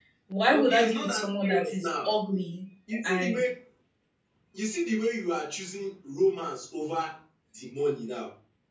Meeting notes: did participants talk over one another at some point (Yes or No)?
Yes